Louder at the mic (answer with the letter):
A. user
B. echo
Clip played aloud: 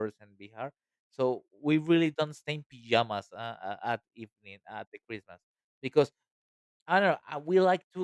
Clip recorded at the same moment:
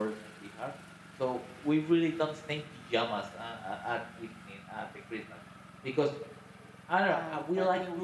B